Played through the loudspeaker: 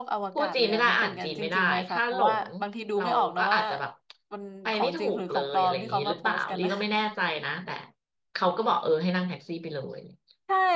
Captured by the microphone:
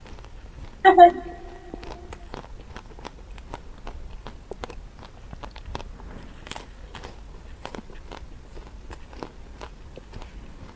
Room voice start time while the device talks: 0.8 s

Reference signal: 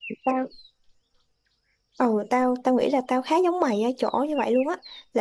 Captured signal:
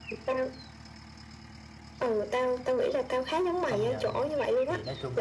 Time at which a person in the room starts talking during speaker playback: 3.6 s

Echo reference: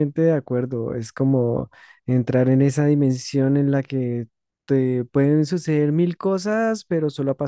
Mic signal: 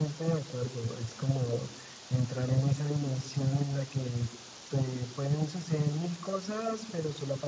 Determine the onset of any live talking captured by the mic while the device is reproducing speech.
none

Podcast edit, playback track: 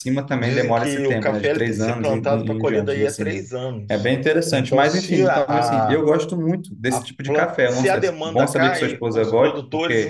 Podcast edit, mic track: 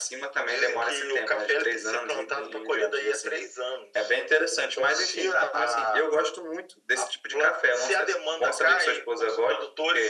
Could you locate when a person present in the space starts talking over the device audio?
none

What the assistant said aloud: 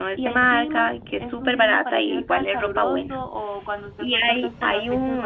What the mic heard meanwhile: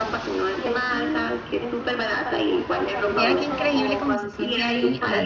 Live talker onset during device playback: 3.1 s

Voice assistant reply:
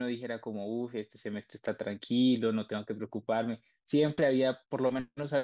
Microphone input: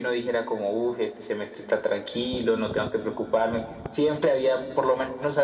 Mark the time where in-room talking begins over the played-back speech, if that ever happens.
none

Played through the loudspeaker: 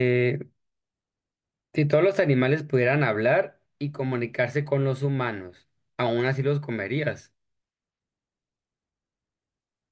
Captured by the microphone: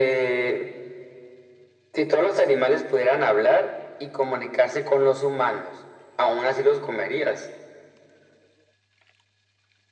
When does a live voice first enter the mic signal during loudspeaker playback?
none

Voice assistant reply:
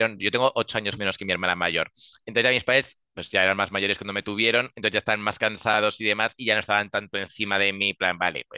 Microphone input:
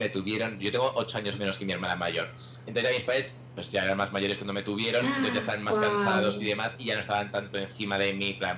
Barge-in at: 5.0 s

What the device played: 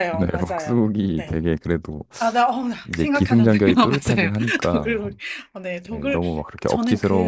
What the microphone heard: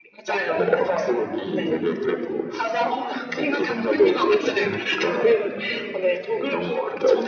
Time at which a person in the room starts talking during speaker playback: none

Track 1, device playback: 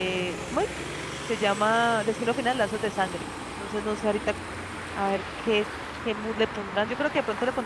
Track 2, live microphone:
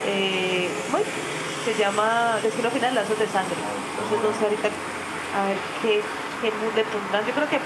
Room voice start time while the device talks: 3.3 s

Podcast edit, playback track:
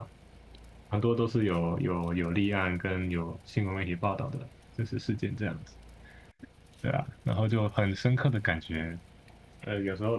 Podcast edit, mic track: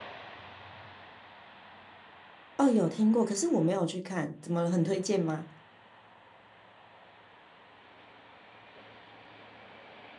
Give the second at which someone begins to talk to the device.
2.6 s

